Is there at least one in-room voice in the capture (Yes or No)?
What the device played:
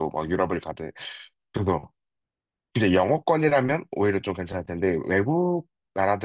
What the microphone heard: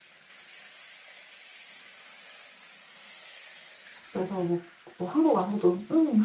Yes